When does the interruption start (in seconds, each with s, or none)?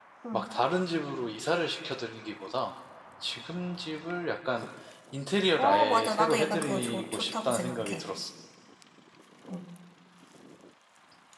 5.6 s